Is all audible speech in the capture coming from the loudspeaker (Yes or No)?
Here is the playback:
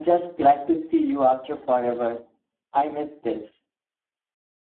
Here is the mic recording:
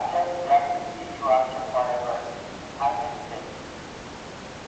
Yes